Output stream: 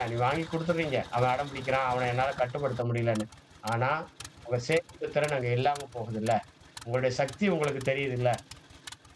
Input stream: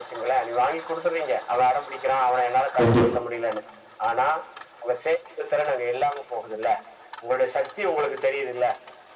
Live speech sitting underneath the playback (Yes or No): No